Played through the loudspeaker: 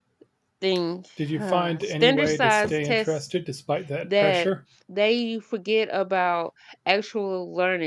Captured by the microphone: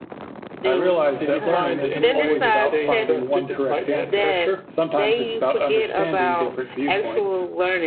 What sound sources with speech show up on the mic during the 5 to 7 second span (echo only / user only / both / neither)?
both